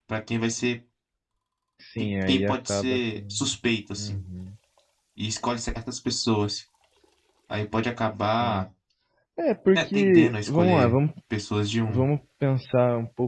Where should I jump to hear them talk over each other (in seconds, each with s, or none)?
2.0 s